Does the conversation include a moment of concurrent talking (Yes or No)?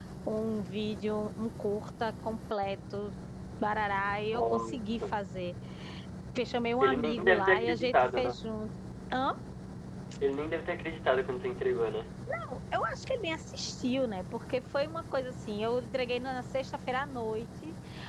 Yes